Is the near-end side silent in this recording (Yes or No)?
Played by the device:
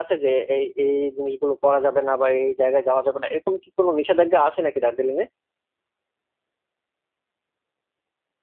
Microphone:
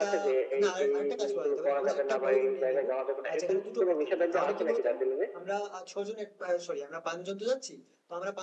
No